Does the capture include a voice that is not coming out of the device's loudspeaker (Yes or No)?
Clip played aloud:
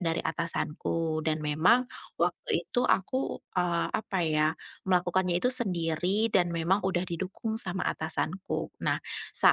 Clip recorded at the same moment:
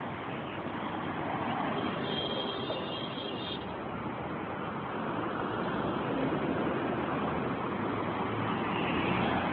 No